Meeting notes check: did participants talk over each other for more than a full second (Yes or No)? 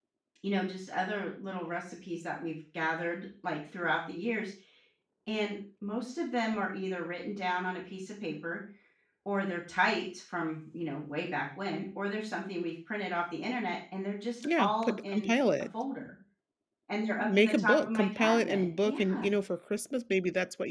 Yes